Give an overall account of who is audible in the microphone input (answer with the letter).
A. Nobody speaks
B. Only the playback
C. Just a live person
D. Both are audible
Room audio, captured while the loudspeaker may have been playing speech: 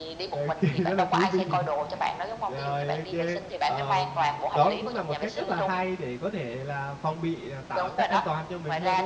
D